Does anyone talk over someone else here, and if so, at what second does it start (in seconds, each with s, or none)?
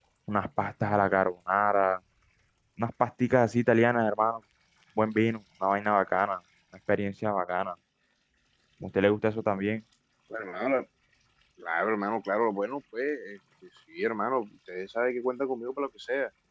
none